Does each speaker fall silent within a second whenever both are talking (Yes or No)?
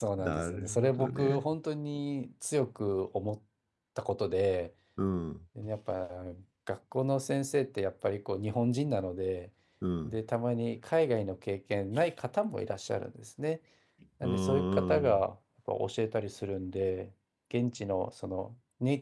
No